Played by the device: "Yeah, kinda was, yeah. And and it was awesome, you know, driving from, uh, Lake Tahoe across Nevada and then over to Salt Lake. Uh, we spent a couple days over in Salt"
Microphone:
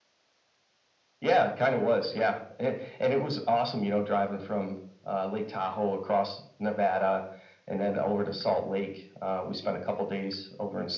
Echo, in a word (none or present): present